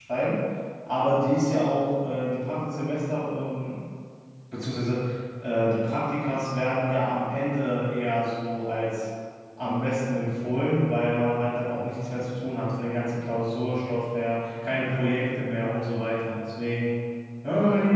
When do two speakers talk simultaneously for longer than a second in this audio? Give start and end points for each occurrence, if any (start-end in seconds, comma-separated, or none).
none